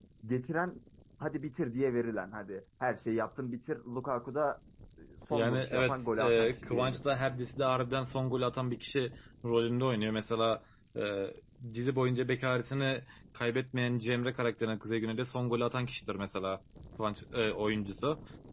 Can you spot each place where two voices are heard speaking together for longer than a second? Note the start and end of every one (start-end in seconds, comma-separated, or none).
5.3-7.0